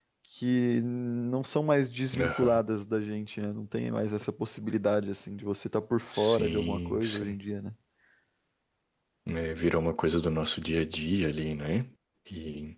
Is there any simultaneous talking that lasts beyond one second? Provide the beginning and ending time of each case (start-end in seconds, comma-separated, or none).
6.1-7.3